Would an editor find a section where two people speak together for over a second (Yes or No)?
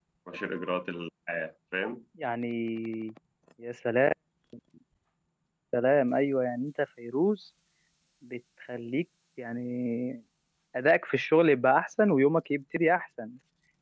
No